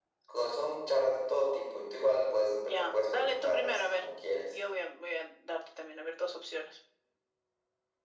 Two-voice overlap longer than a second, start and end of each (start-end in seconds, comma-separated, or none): 2.6-4.0